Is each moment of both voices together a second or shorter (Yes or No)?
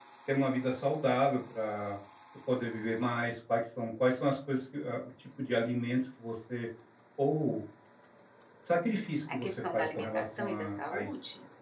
No